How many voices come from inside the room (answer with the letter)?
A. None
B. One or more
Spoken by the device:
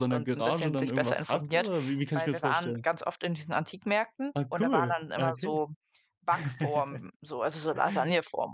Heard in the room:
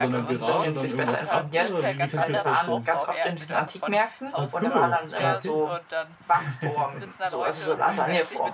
B